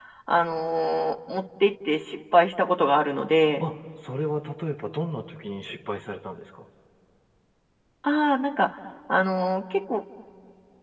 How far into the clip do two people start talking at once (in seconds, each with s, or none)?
none